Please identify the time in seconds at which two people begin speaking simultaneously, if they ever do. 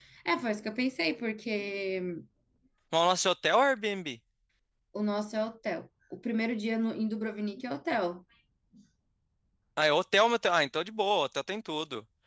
none

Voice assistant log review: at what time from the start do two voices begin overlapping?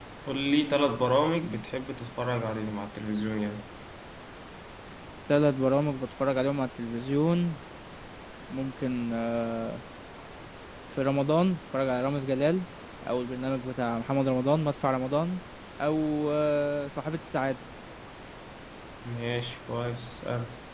none

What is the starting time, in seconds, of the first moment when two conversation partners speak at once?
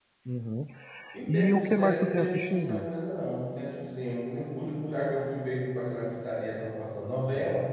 1.3 s

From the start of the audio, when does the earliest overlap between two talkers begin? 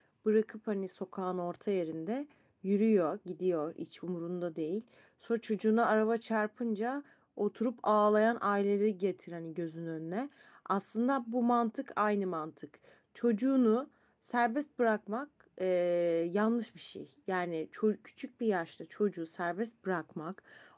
none

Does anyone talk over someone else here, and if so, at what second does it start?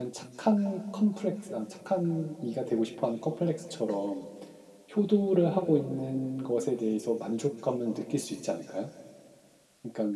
none

